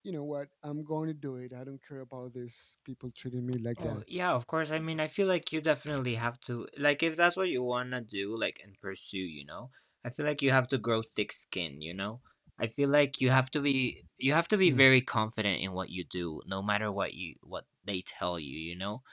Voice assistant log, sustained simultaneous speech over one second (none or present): none